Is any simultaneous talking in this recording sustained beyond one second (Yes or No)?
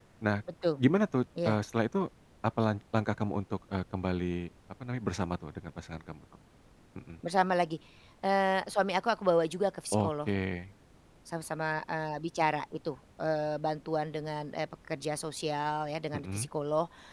No